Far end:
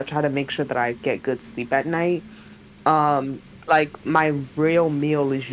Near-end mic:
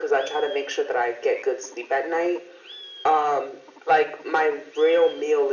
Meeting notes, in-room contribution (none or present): none